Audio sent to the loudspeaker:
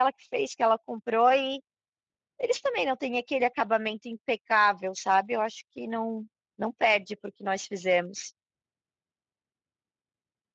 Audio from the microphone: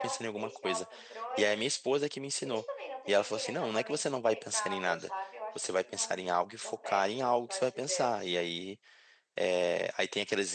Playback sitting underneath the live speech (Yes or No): Yes